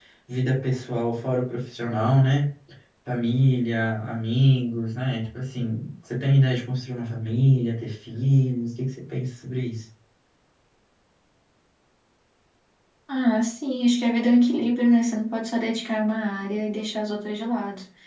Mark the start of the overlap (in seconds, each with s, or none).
none